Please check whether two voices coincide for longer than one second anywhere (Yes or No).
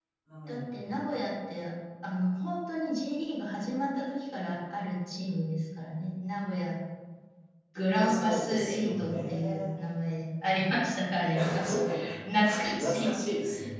Yes